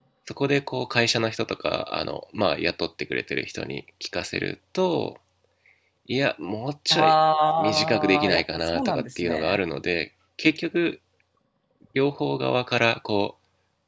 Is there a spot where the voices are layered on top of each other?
Yes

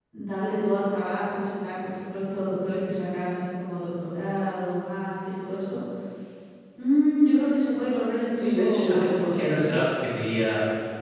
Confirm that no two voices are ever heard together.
No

